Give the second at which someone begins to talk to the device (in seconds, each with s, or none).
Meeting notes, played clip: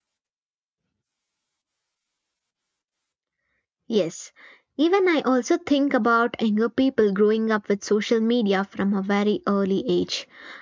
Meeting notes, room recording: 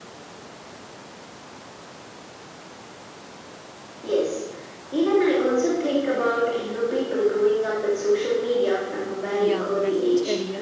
9.4 s